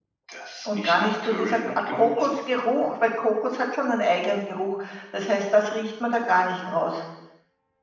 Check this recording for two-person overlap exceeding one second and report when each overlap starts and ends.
0.8-2.3

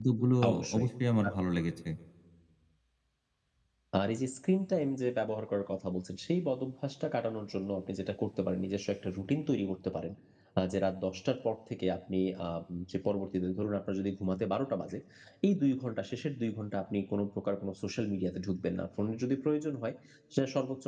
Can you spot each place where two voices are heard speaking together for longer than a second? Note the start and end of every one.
none

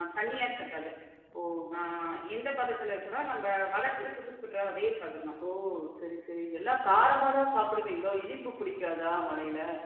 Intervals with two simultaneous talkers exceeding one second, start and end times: none

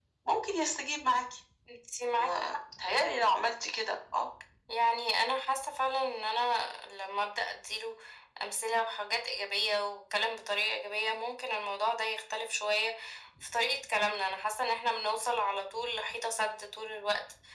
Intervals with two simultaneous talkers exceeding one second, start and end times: none

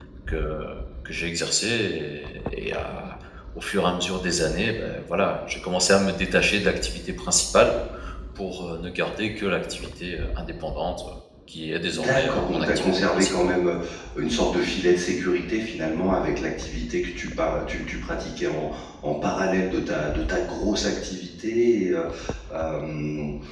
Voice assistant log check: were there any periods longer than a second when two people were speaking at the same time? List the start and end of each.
11.9-13.5

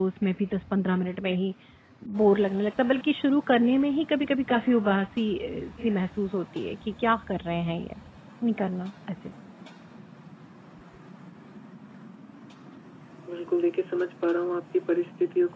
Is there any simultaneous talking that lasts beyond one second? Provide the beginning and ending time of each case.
none

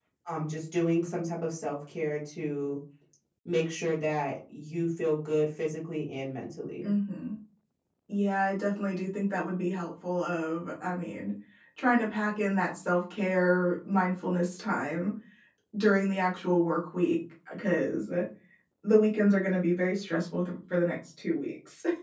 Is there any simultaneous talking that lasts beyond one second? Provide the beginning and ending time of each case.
none

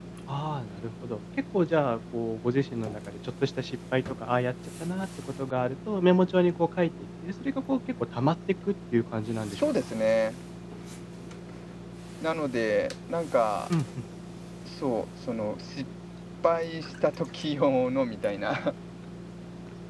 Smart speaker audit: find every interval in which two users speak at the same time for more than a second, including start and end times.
none

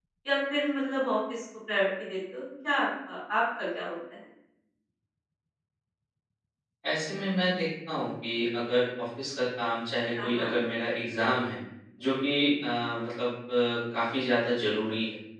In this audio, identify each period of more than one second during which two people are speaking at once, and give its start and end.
none

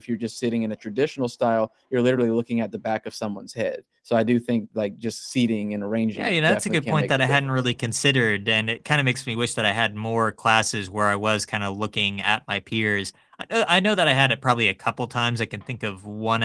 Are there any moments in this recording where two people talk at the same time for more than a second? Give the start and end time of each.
6.1-7.4

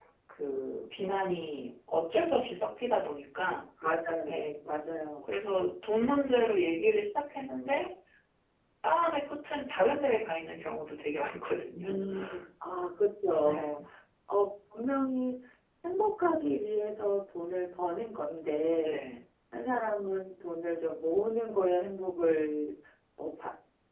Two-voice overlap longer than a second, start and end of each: none

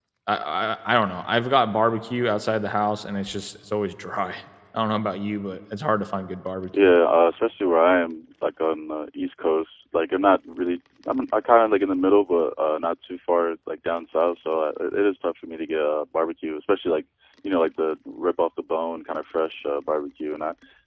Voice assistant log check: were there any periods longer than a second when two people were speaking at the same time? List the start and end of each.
none

